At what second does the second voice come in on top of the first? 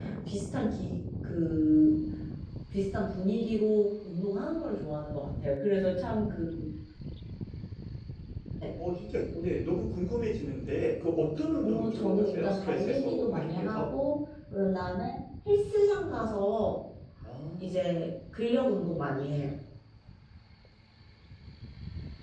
11.6 s

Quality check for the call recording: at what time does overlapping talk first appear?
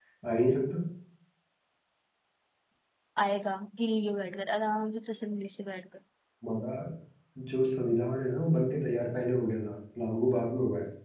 none

